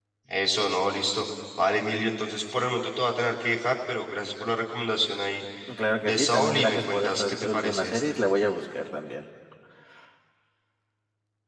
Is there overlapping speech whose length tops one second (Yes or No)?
Yes